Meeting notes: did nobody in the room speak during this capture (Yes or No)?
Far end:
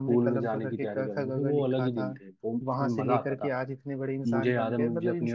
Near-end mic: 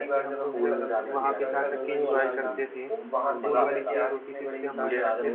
No